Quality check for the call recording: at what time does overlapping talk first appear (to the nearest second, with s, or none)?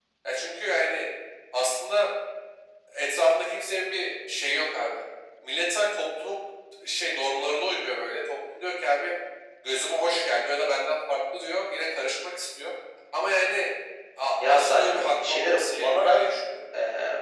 14 s